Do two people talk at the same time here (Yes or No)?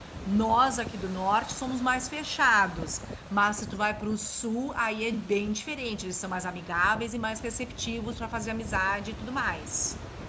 No